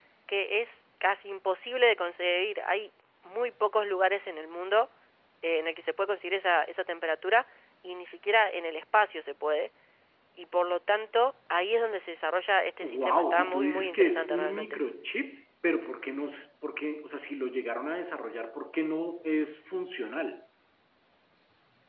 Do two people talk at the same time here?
Yes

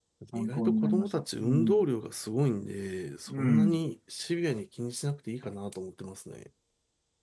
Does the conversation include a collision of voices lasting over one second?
Yes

